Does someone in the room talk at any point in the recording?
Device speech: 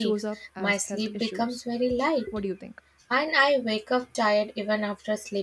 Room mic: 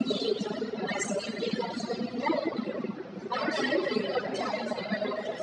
Yes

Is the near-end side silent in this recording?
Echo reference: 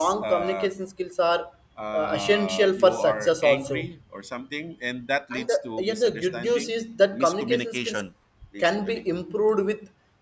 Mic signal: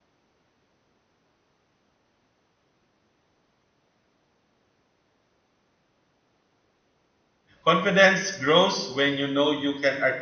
No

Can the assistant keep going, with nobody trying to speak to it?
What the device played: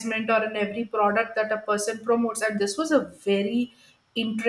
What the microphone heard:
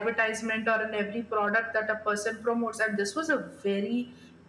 Yes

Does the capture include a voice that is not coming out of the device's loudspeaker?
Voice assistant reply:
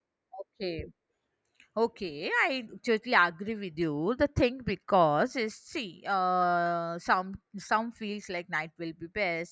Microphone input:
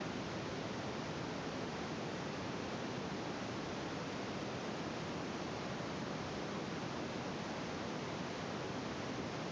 No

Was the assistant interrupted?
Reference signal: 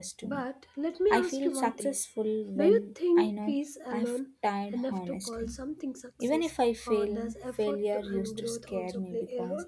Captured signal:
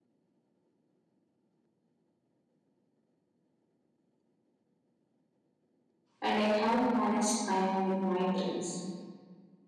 Yes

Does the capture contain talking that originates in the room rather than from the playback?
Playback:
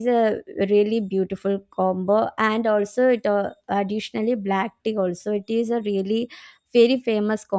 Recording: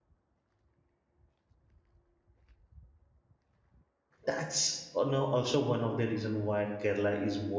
Yes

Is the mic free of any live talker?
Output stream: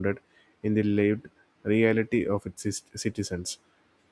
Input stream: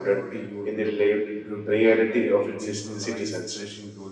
No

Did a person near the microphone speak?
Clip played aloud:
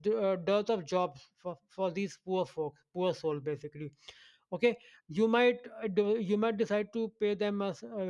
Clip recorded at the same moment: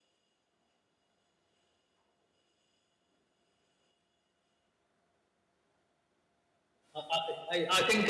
Yes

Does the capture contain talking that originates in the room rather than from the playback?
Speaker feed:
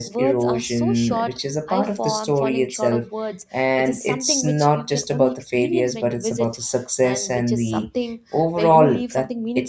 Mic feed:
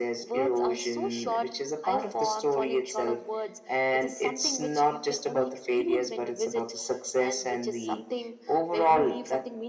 No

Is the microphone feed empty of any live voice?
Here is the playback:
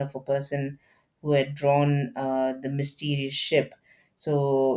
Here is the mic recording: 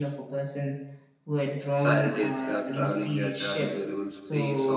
No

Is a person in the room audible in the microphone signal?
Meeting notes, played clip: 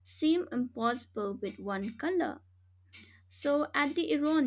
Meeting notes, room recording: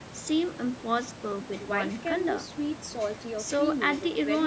Yes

